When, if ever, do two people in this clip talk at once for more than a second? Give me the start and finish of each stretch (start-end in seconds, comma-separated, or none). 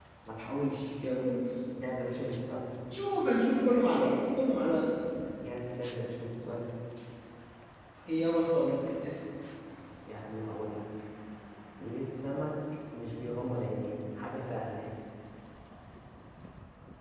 none